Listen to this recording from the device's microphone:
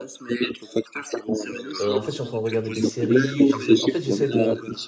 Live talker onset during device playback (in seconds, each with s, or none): 1.8 s